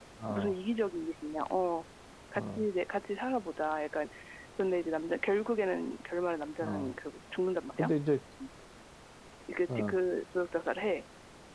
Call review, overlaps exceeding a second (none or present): none